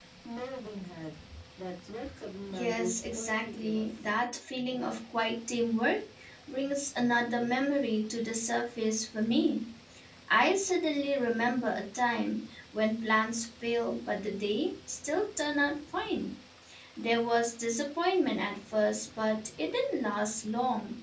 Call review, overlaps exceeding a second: present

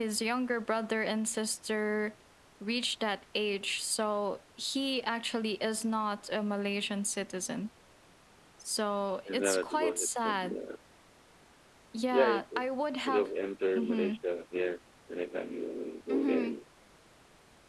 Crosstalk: present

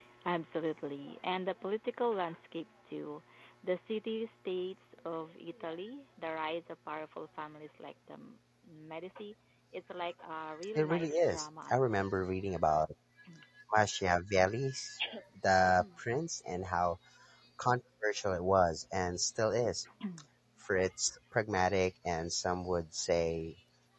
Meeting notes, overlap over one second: present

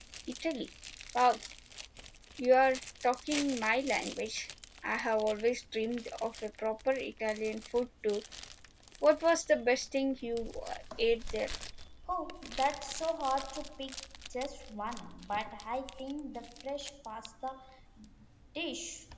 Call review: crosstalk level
none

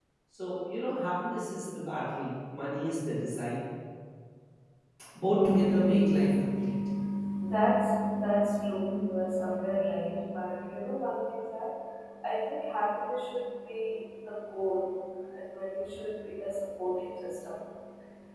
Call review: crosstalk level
present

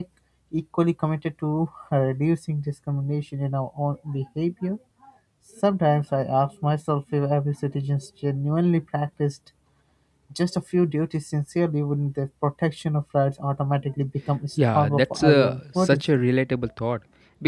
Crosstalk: present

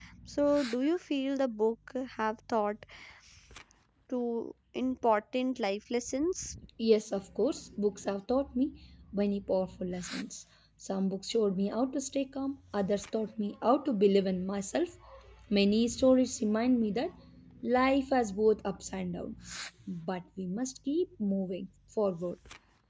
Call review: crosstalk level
none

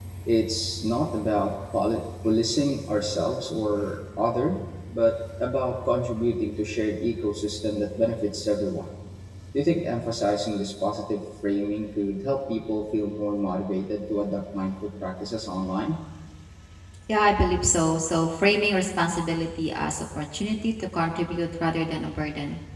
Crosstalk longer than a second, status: none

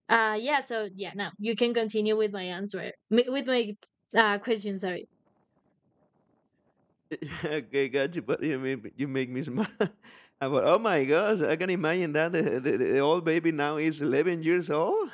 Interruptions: none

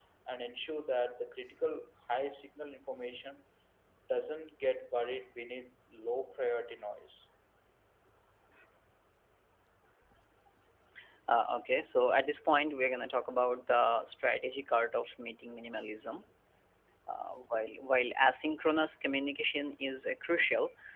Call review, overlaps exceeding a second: none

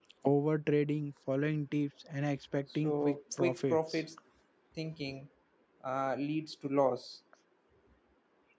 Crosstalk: present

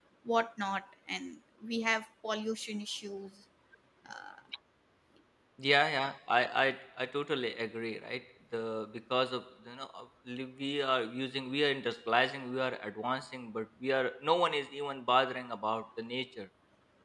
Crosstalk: none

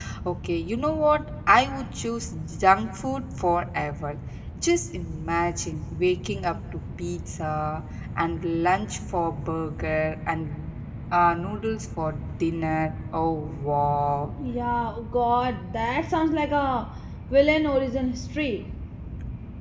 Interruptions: none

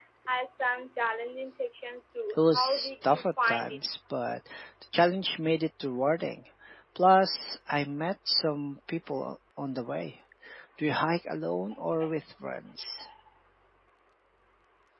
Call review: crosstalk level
present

